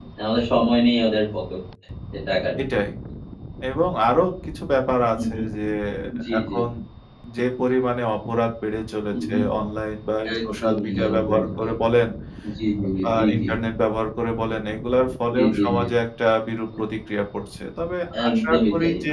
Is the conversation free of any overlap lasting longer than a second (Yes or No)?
No